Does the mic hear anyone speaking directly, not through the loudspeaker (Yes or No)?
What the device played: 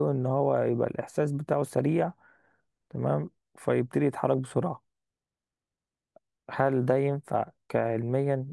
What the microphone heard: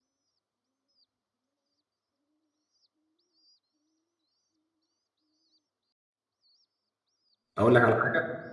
Yes